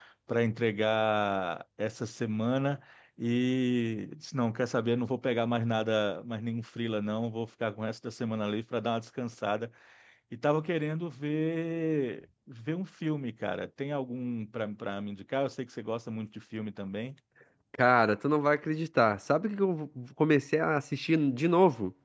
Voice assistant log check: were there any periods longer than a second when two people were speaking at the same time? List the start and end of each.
none

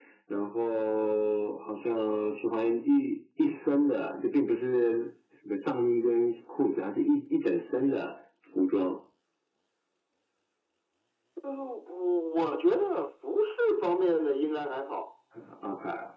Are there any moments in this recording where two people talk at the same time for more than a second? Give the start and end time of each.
none

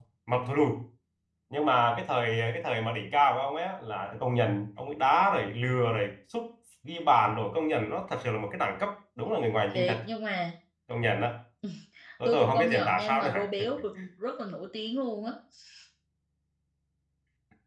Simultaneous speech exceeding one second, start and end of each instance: 12.2-13.5

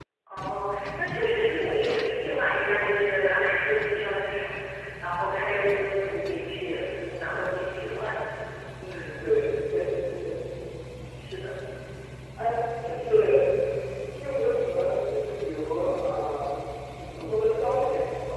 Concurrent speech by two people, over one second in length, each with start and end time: none

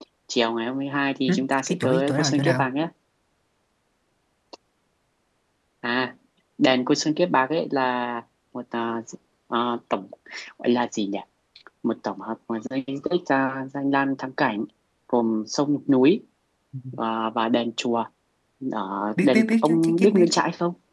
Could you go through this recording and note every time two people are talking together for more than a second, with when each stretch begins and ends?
1.3-2.7, 19.2-20.4

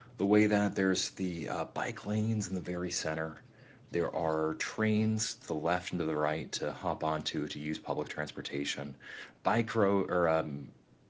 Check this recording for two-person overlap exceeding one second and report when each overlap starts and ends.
none

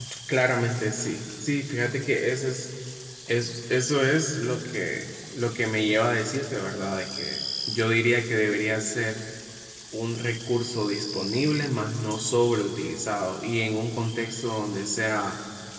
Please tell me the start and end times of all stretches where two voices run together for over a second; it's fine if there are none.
none

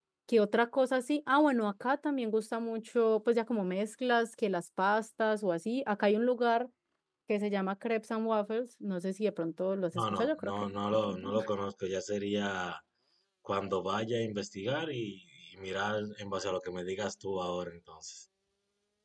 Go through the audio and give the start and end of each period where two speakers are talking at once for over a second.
10.0-11.3

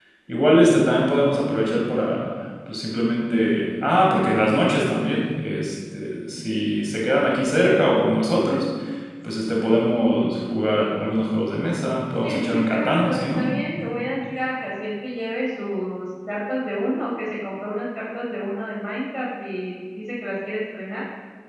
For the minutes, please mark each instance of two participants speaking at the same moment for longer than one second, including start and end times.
12.2-13.5

